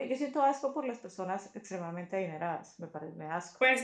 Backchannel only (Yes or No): No